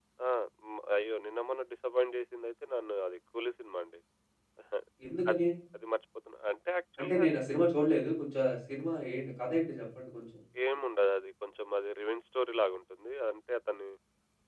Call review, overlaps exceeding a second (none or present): none